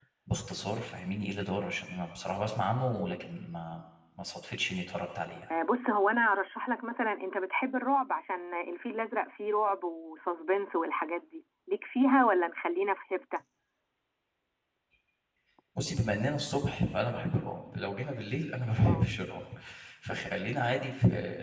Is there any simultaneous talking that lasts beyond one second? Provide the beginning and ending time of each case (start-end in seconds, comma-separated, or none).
none